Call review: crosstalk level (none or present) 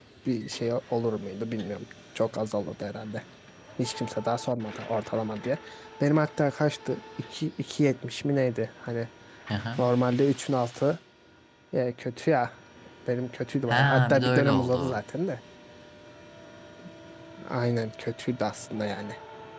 present